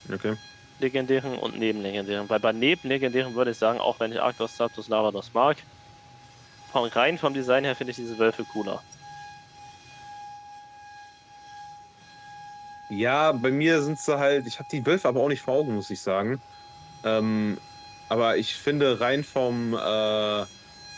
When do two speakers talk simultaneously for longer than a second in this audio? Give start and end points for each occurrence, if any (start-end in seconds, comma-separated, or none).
none